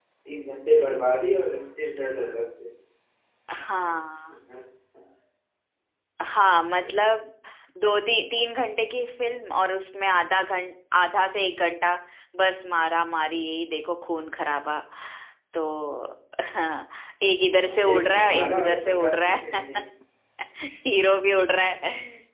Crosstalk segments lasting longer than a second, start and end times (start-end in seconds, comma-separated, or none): 17.7-19.6